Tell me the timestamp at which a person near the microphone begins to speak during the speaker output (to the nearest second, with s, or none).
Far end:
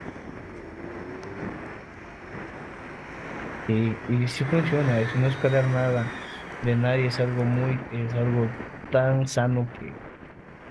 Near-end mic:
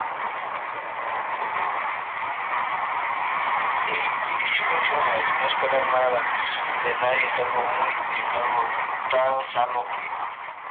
none